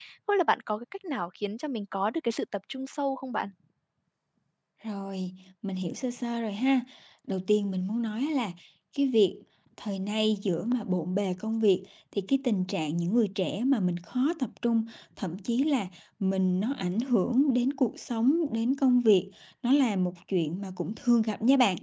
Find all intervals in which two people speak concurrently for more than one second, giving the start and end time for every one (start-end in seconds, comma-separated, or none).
none